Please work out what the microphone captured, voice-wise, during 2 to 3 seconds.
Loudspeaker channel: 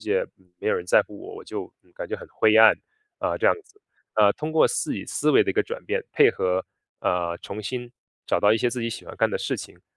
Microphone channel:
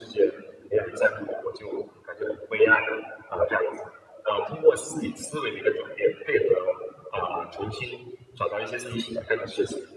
echo only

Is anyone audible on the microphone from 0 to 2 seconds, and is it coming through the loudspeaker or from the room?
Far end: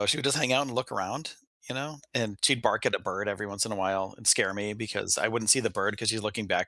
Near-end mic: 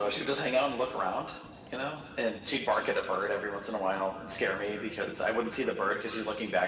echo only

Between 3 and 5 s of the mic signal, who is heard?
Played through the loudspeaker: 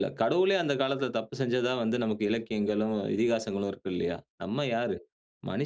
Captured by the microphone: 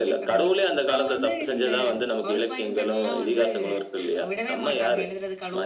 both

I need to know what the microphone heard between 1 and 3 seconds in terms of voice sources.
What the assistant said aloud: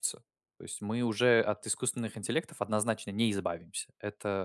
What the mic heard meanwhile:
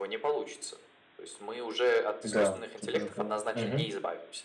both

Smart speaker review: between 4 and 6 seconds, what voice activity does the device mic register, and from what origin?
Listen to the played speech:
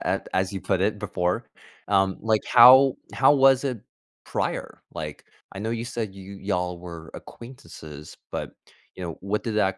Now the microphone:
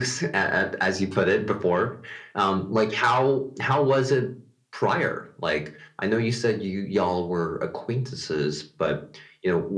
echo only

